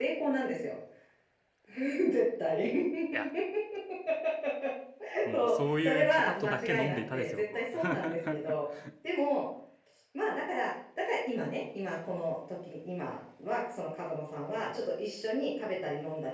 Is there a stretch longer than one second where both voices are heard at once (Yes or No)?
Yes